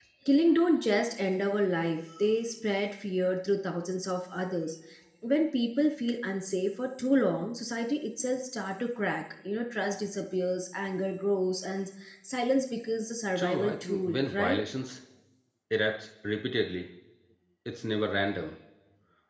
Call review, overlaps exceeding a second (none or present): present